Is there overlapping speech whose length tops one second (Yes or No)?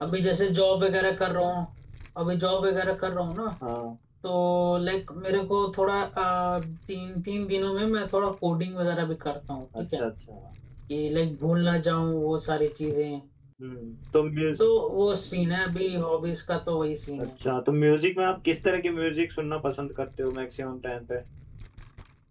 No